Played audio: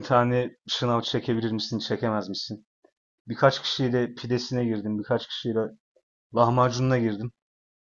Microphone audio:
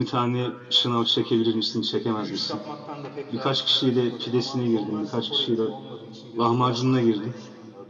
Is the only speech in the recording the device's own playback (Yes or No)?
No